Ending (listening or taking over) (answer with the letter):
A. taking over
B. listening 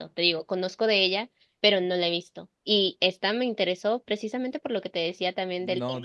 A